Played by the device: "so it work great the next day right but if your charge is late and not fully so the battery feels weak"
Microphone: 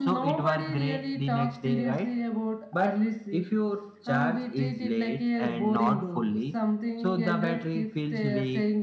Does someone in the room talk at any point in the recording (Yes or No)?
Yes